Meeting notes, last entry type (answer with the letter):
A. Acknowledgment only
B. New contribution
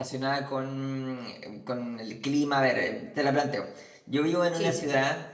A